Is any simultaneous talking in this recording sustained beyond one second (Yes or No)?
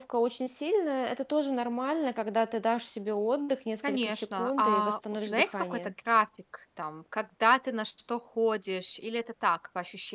Yes